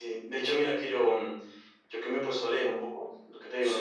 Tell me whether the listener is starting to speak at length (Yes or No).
No